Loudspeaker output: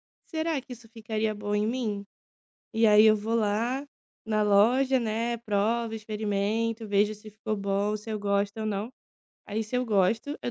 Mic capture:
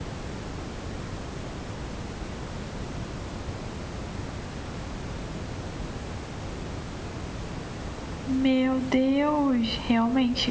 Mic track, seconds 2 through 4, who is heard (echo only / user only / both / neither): neither